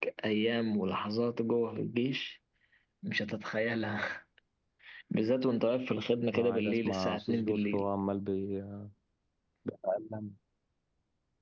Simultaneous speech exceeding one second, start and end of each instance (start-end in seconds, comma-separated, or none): 6.3-7.8